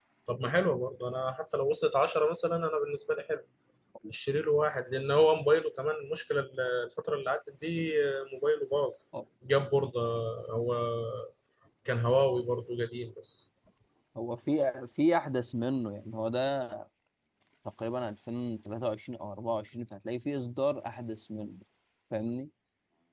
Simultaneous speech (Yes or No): No